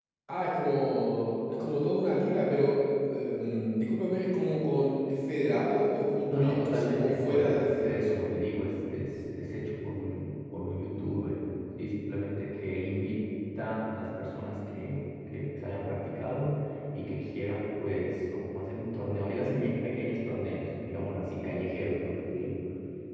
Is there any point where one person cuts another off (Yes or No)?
Yes